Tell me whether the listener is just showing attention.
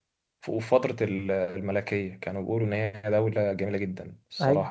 No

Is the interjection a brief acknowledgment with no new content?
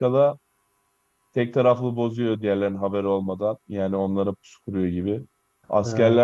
Yes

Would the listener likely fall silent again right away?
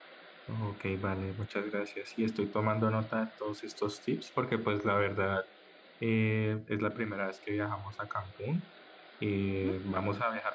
Yes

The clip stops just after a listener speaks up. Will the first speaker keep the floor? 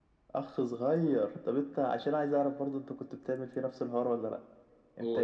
Yes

